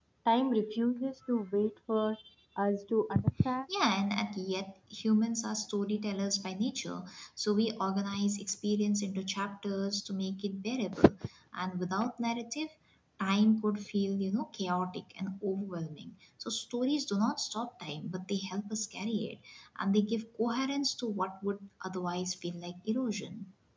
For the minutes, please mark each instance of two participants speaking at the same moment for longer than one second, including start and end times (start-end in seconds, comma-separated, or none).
none